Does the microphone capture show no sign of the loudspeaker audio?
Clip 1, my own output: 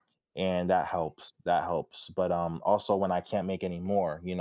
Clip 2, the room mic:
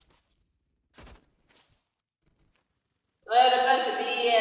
Yes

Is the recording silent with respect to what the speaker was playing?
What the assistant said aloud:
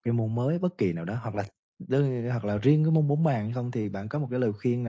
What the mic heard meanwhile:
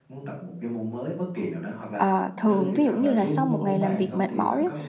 No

